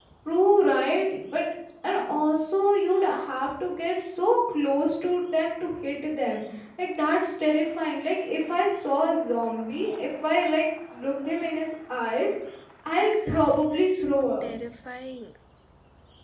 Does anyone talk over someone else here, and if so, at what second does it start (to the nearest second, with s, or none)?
13 s